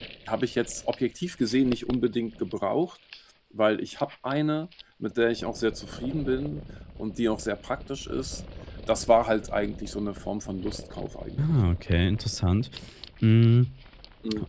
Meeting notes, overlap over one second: none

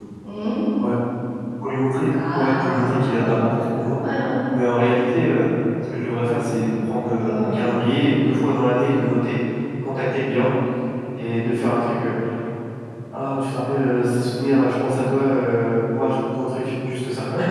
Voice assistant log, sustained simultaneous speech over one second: present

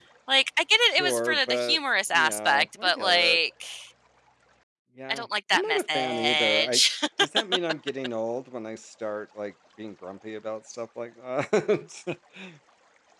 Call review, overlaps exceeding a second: present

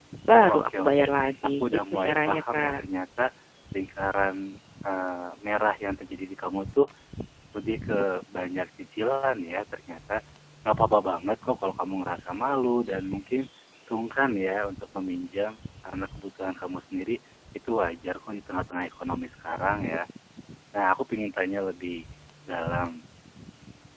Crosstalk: present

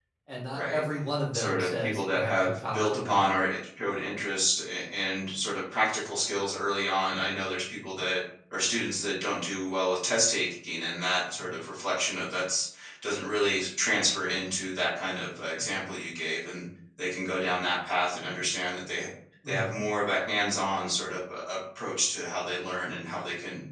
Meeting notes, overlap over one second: present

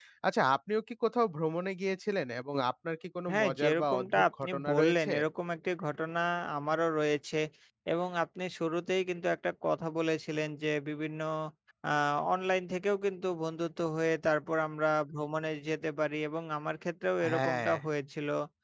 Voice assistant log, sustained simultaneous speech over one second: present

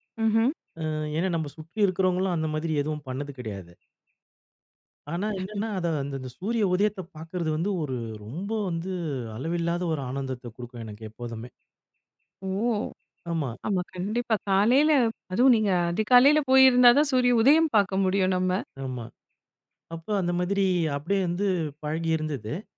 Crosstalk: none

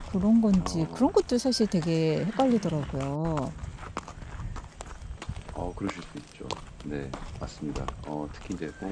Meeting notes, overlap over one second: none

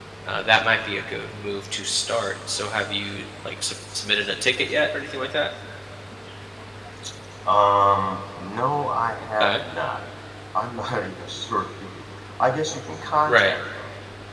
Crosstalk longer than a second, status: none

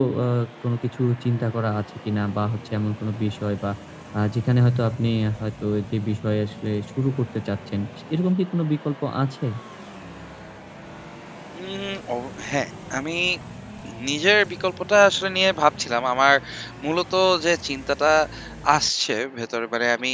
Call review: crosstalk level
none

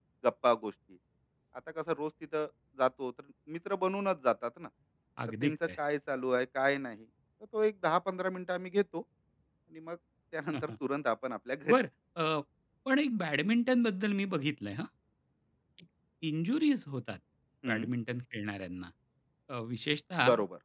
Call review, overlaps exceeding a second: none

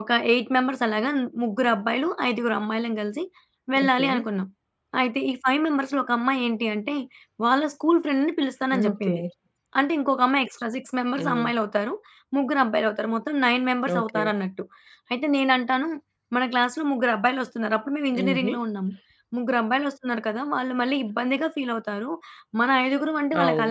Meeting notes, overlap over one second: none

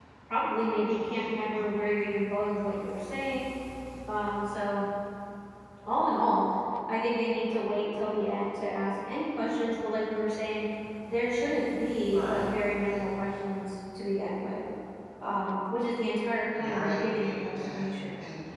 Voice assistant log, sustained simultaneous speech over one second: present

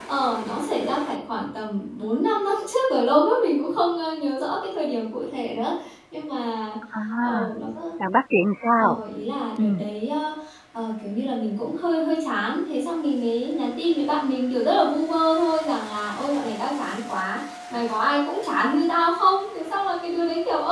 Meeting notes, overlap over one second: none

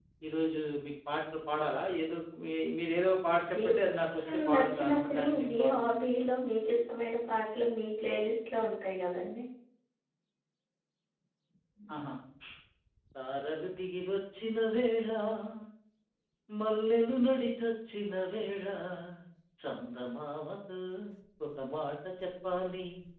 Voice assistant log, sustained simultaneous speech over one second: present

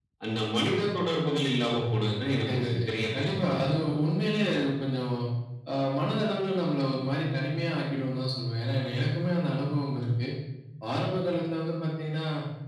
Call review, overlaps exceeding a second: present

